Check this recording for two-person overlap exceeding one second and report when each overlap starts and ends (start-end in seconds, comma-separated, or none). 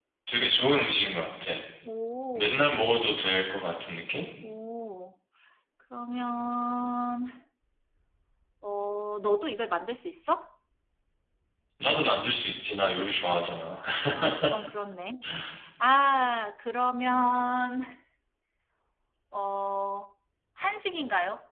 none